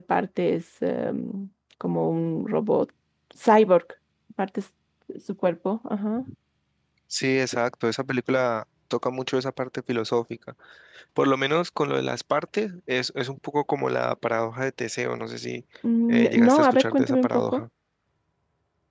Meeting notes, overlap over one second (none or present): present